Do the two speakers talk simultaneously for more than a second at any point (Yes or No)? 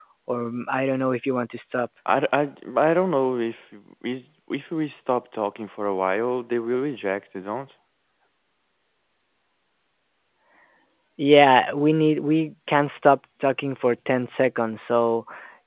No